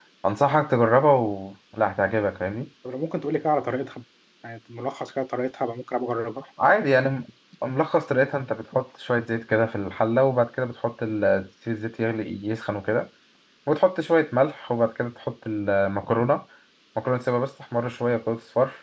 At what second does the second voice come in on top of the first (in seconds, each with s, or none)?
none